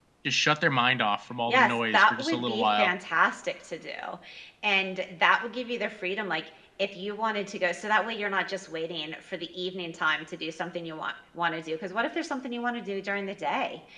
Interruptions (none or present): present